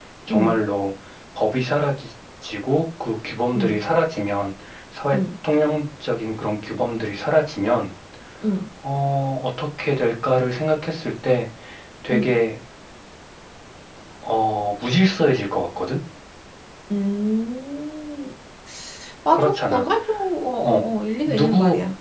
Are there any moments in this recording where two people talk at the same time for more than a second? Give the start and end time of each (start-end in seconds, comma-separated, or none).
none